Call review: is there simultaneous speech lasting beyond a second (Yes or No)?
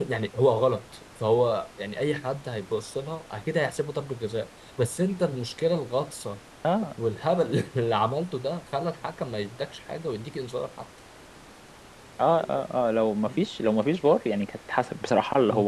No